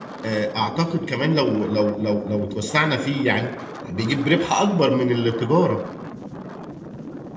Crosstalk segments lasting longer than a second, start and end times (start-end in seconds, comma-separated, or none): none